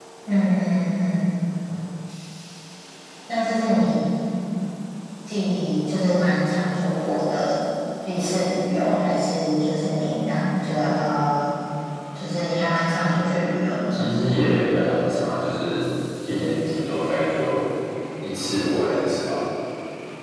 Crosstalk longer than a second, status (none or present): none